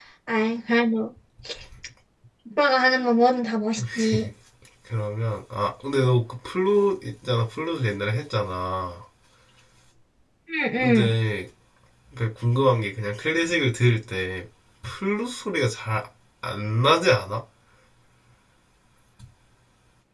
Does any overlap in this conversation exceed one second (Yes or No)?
No